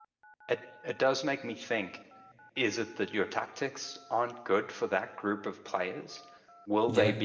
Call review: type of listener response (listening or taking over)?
listening